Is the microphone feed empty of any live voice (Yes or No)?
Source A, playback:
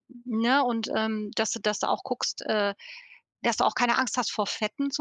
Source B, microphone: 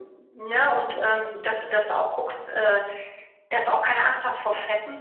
No